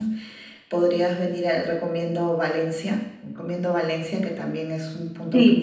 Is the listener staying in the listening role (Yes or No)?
No